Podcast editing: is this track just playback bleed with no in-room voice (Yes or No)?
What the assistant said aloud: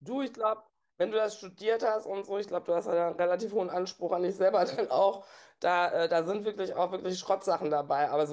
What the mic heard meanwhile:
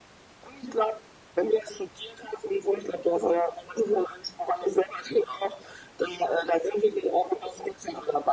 Yes